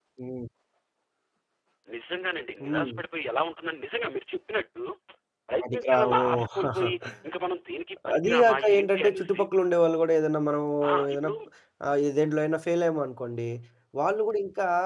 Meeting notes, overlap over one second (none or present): present